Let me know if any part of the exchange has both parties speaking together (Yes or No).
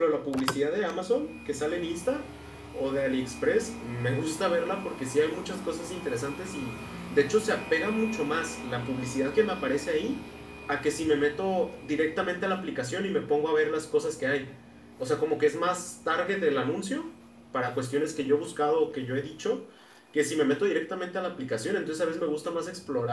No